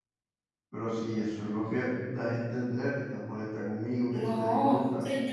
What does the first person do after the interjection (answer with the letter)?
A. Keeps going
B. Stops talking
B